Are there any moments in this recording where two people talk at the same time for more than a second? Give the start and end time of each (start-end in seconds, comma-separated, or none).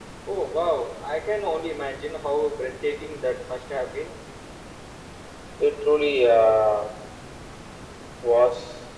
none